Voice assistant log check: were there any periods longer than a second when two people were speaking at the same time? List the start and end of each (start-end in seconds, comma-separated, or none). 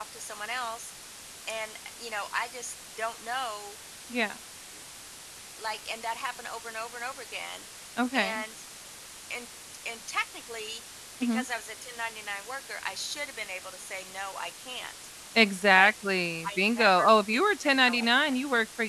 16.4-18.4